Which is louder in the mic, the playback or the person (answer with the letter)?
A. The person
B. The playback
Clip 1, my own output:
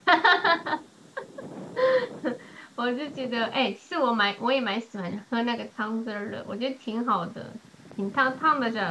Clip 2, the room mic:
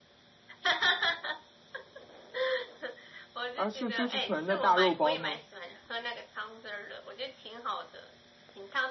A